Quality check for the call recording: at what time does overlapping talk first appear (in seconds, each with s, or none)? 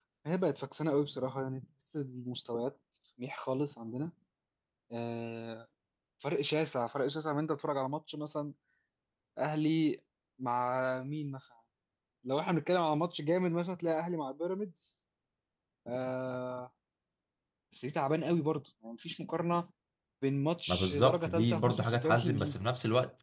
20.7 s